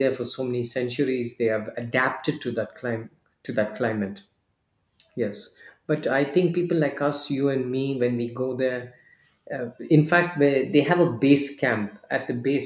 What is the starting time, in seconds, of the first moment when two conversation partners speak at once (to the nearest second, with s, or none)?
none